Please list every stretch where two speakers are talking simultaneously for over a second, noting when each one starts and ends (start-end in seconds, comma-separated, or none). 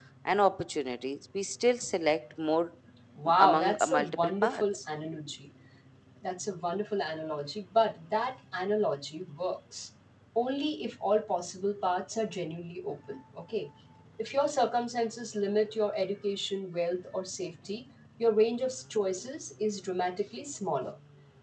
3.4-4.8